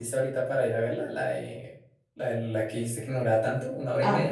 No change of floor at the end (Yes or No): No